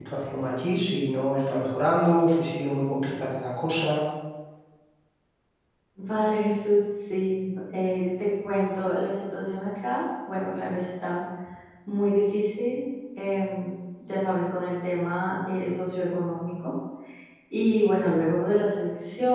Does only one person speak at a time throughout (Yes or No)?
Yes